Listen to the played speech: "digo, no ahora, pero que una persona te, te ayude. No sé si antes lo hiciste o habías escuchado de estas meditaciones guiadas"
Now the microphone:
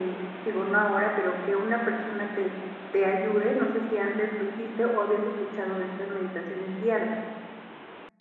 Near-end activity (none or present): none